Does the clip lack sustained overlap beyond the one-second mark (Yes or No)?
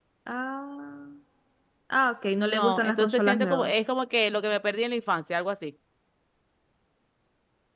No